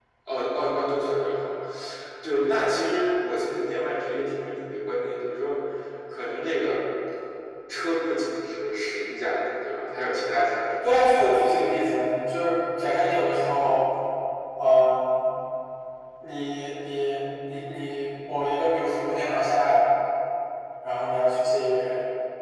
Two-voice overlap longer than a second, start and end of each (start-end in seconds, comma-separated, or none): none